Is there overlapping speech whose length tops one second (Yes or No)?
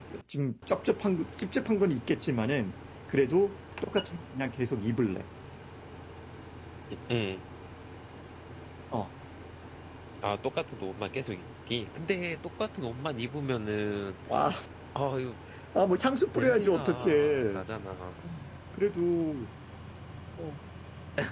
Yes